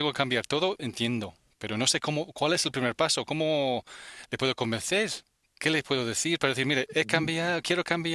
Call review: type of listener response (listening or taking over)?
listening